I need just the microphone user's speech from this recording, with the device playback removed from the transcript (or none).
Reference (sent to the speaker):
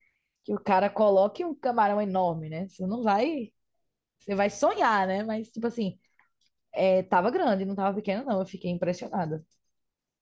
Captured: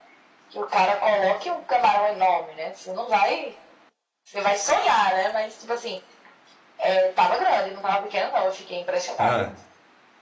Ah,